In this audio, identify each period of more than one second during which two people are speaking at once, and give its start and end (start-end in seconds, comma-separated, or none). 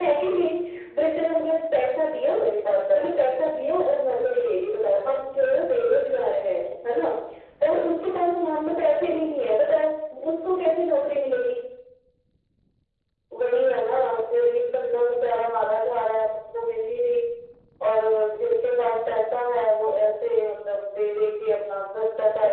none